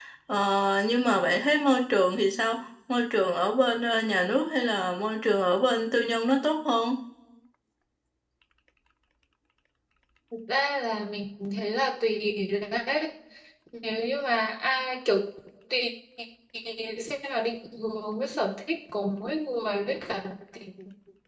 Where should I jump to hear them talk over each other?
none

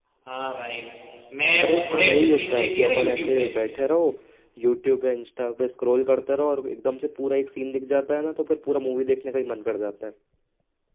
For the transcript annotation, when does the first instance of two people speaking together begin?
1.6 s

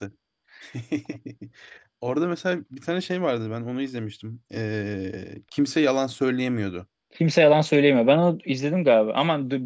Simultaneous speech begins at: none

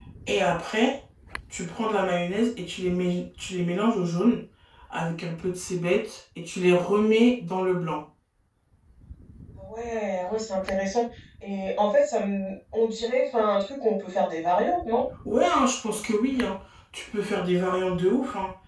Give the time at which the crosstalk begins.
none

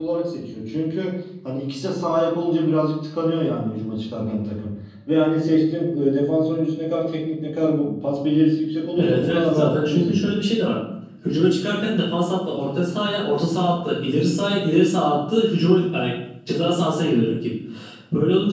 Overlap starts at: 9.0 s

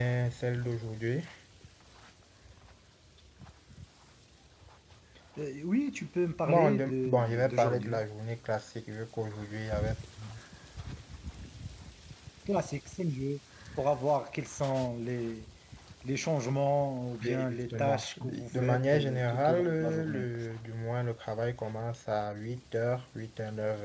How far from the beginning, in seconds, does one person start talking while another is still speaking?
6.4 s

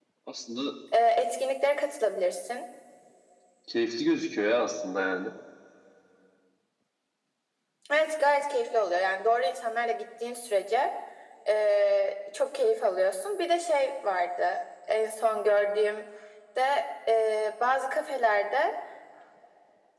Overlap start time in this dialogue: none

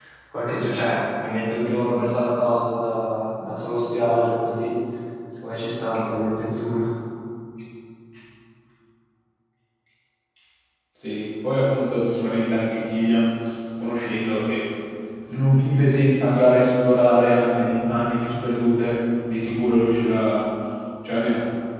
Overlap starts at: none

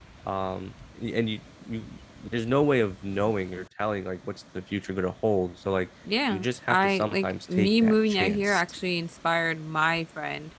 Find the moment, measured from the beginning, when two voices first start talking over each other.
6.3 s

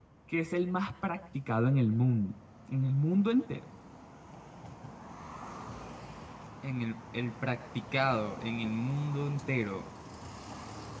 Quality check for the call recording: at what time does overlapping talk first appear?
none

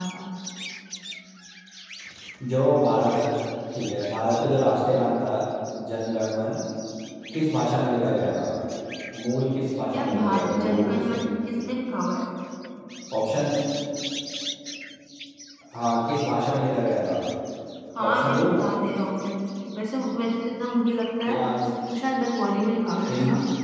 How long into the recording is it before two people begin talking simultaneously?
9.9 s

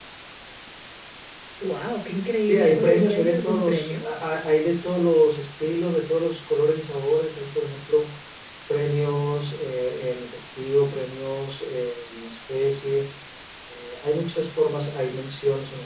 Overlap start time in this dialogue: 2.5 s

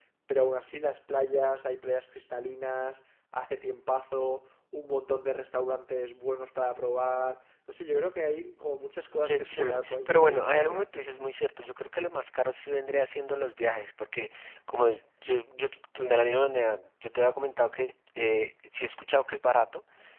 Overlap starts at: 9.2 s

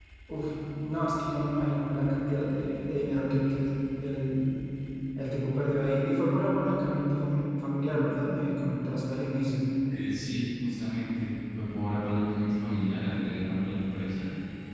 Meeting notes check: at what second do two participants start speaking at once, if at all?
none

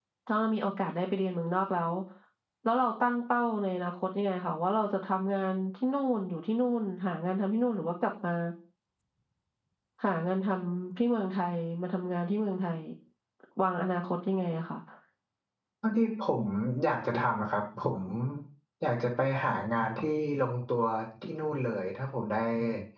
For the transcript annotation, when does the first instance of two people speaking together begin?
none

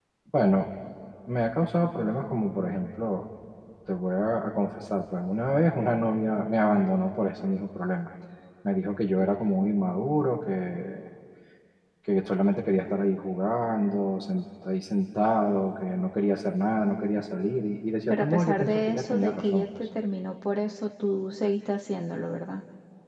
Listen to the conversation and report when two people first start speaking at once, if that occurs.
18.1 s

